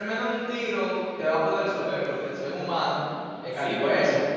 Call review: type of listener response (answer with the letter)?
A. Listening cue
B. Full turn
B